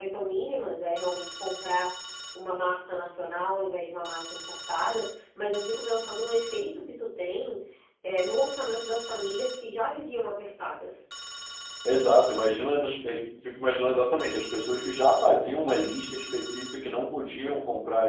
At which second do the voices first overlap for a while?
none

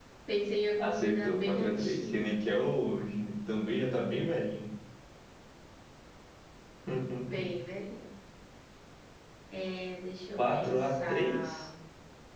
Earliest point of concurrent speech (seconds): 0.8 s

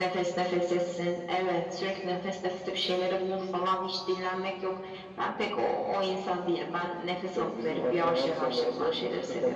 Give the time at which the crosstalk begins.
7.3 s

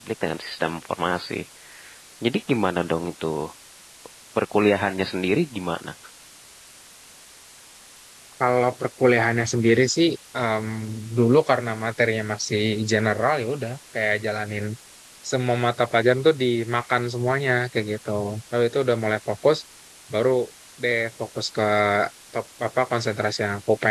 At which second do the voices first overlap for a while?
none

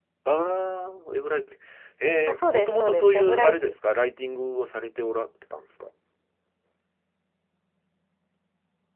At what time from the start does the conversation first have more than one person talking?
2.3 s

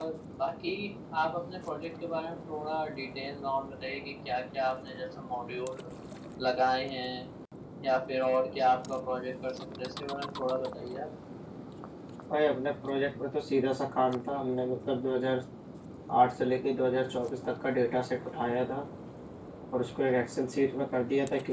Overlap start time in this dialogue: none

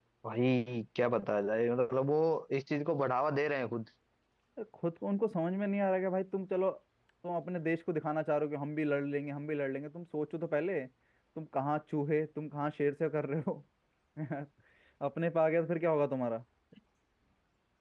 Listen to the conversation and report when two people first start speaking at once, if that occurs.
none

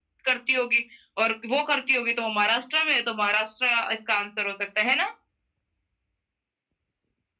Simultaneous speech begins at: none

